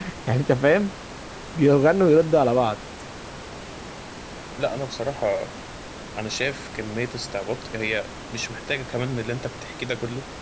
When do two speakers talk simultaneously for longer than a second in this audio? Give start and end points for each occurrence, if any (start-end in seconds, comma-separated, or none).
none